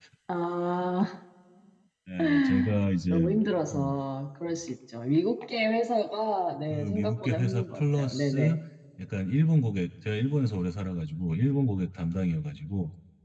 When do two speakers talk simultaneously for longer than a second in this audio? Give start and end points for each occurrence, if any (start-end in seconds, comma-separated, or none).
6.7-8.6